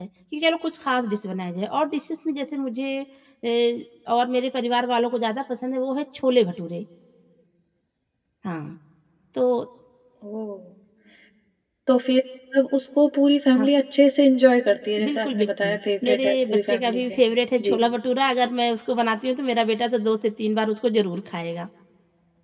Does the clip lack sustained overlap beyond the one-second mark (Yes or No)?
No